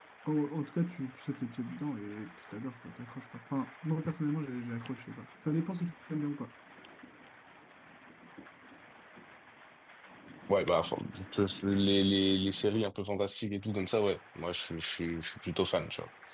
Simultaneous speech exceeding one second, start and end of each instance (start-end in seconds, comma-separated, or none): none